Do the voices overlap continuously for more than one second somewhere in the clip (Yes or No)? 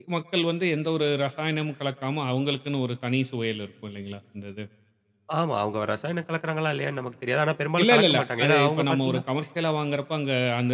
Yes